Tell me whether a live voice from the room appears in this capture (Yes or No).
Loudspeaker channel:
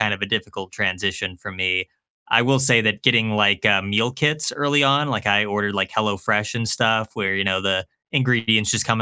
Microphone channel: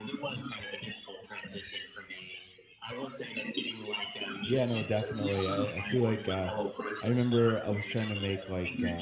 Yes